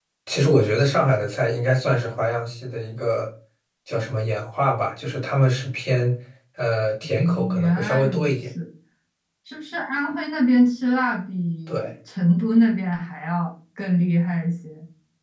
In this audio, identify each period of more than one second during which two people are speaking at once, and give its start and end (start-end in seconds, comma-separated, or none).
7.0-8.3